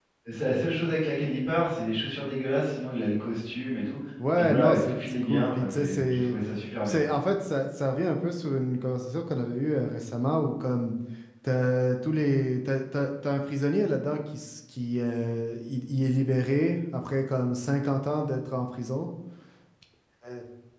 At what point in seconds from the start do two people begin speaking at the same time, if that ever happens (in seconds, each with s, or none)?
4.2 s